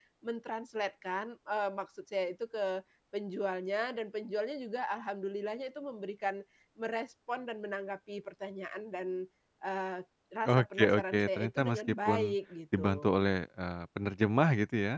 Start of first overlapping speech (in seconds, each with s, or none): 10.5 s